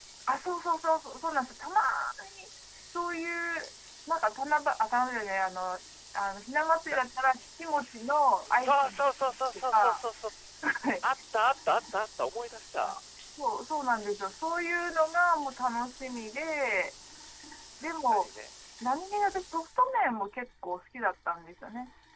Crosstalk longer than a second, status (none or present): present